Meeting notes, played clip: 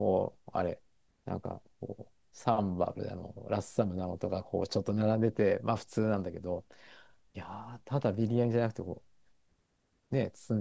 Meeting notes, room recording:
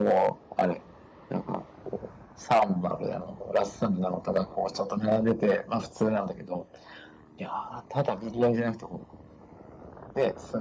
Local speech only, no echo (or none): none